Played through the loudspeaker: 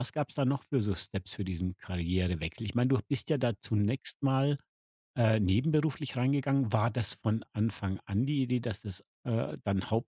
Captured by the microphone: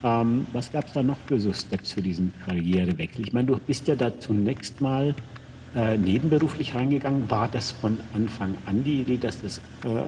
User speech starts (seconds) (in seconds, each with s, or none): none